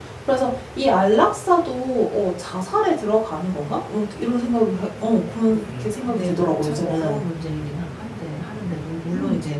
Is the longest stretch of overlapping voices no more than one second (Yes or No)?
No